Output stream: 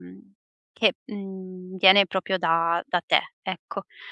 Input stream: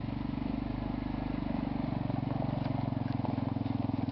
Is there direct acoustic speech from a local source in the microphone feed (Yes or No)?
No